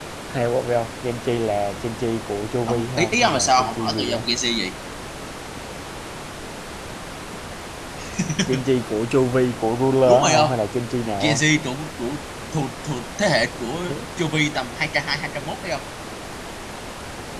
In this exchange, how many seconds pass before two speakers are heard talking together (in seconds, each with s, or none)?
2.7 s